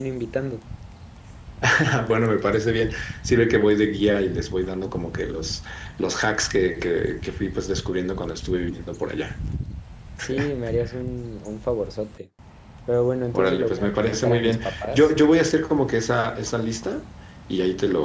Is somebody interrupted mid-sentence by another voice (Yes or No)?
Yes